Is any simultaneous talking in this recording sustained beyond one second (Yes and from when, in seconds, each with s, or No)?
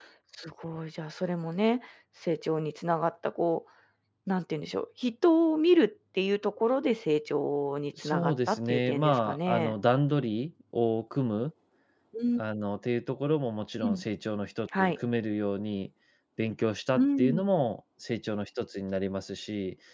Yes, from 8.0 s